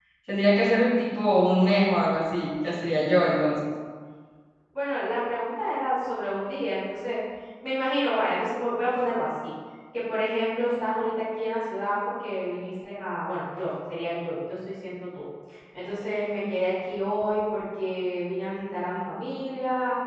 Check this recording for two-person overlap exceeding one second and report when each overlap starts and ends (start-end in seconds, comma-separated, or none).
none